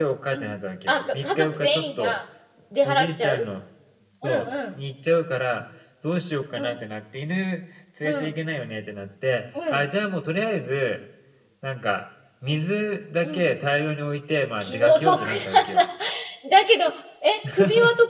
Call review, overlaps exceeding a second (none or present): present